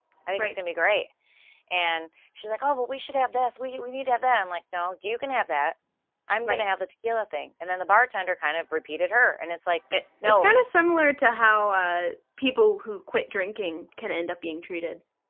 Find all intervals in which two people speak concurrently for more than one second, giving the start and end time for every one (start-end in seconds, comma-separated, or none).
none